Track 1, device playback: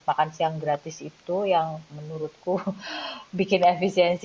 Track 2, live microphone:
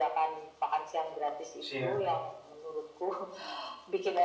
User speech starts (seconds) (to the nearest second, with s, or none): 2 s